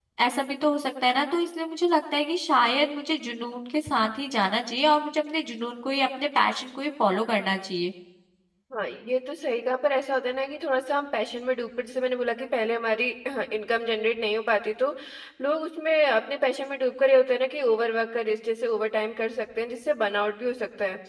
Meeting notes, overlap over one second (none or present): none